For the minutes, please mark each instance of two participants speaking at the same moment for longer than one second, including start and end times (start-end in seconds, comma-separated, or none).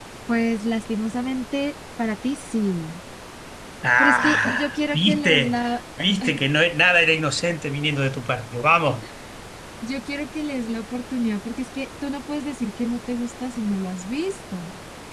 4.0-5.6